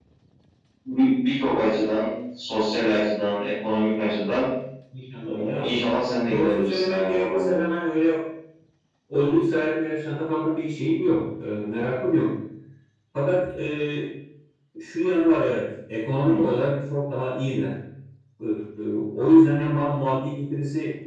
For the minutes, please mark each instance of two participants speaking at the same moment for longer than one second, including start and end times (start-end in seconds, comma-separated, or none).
6.3-7.5